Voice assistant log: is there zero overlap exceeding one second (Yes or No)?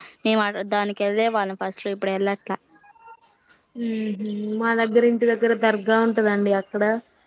Yes